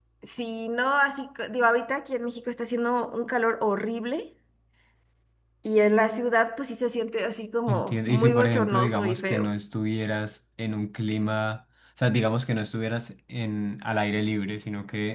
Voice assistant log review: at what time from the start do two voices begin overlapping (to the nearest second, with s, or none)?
8 s